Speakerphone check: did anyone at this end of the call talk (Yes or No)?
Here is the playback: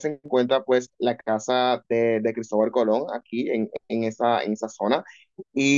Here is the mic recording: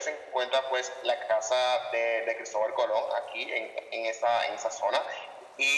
No